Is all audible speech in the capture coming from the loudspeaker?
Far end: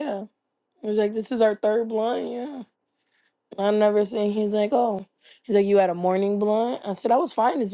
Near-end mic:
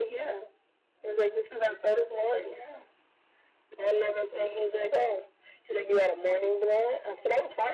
Yes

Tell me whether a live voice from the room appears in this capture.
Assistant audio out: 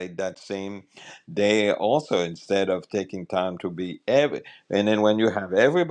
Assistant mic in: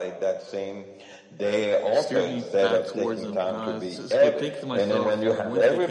Yes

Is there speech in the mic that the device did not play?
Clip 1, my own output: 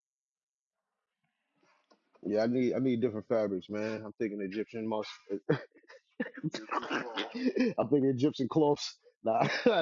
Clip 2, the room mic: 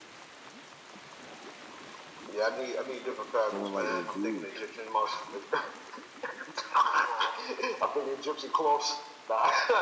Yes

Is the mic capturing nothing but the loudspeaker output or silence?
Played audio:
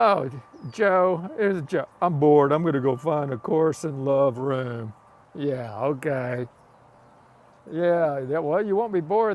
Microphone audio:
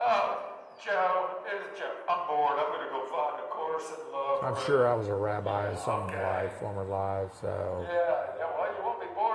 No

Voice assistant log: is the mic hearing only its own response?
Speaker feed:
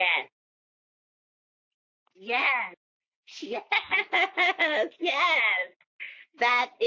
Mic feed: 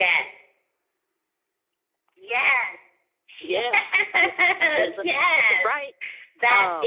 No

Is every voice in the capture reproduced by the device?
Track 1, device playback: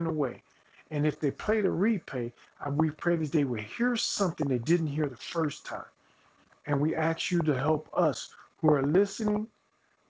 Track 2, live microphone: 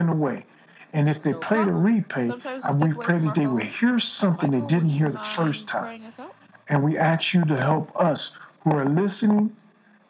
No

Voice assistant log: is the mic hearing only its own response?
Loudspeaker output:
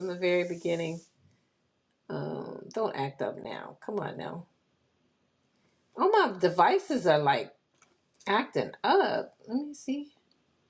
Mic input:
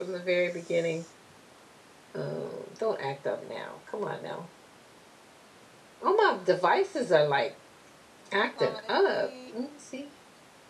No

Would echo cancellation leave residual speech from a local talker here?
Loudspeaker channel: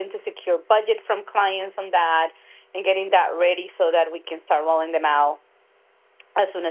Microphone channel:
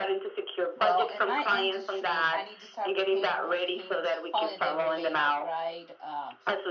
Yes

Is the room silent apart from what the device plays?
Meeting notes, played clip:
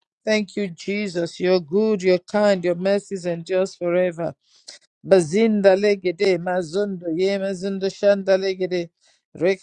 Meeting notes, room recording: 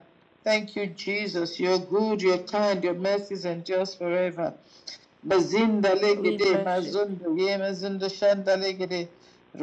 No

